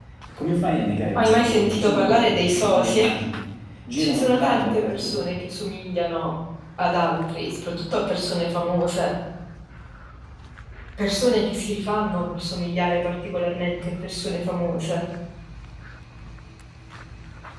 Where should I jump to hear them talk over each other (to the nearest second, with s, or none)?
1 s